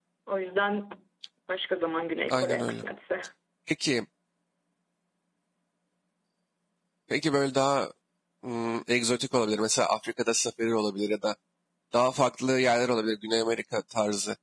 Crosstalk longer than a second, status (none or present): none